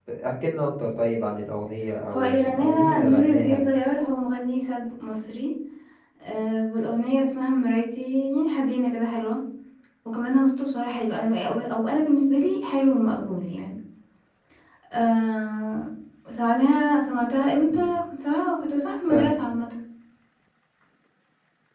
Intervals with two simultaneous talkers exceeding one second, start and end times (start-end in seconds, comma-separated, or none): 2.1-3.6